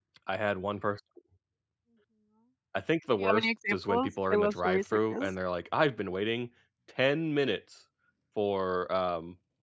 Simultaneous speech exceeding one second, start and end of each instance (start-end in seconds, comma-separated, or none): 3.2-5.4